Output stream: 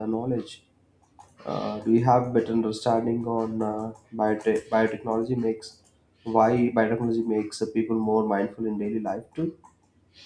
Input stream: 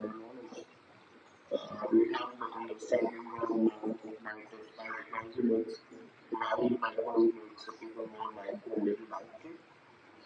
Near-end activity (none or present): none